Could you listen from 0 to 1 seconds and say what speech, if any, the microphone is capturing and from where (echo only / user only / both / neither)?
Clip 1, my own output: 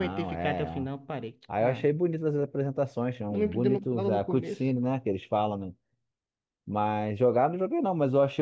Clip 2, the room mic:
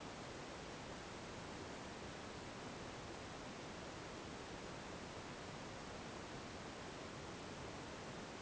neither